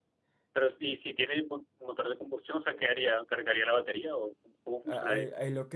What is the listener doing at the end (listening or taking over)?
taking over